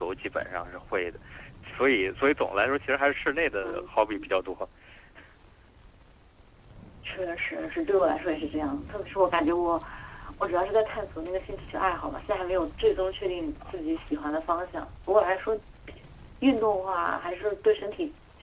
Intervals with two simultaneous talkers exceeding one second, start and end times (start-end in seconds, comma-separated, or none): none